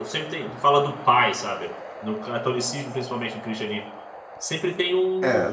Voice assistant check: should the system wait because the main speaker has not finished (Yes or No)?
No